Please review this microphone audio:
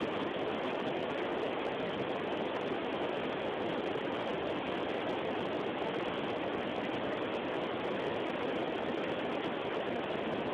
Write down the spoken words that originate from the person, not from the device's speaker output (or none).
none